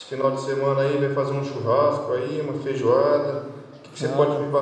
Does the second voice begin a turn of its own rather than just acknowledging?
No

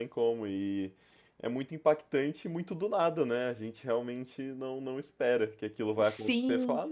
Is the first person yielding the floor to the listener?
No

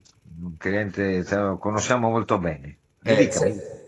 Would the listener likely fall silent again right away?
No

